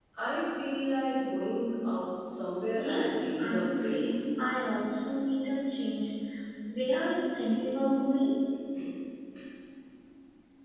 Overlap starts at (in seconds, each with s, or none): 2.8 s